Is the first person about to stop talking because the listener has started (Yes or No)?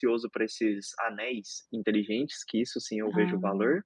No